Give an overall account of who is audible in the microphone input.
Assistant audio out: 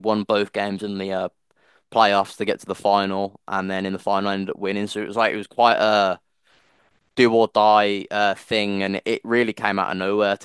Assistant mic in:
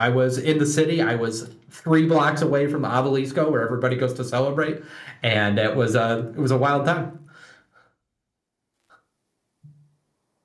user only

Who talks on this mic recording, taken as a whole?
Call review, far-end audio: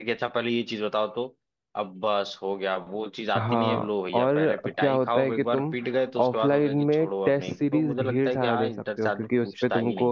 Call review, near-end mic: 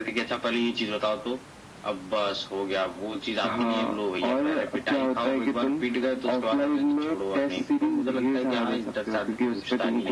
echo only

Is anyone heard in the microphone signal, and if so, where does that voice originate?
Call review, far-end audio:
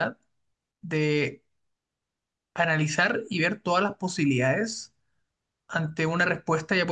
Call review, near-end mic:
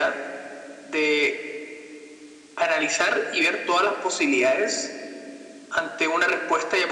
echo only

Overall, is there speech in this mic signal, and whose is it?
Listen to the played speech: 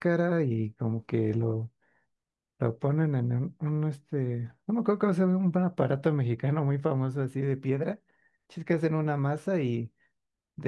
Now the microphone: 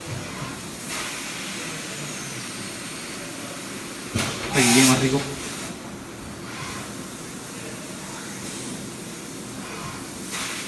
user only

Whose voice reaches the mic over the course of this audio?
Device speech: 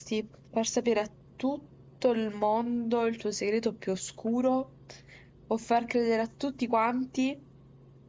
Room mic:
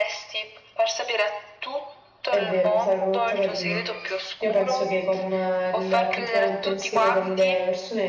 both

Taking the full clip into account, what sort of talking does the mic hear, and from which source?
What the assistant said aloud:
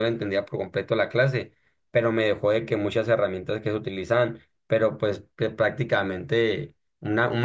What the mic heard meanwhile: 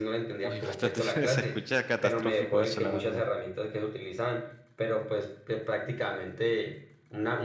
both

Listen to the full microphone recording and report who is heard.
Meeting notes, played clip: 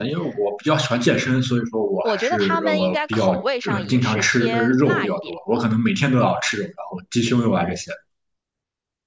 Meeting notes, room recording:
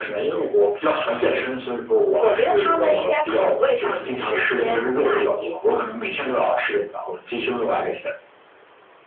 echo only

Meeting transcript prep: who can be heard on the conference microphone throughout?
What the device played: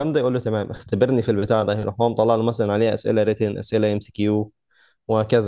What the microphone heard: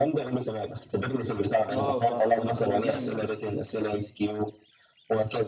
both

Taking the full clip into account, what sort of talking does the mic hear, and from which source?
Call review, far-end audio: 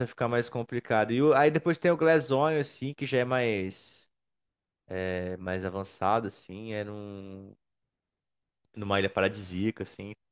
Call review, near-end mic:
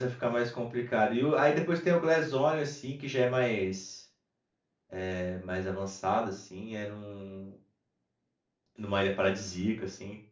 echo only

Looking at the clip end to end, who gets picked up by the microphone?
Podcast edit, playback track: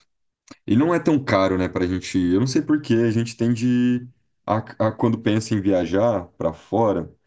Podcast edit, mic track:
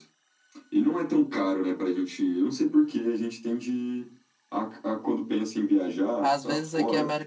both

